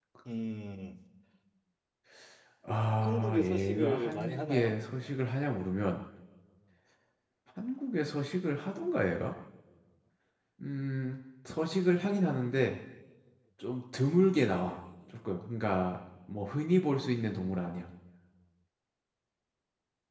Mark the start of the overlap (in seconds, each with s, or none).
3.0 s